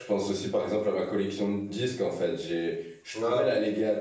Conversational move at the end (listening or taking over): listening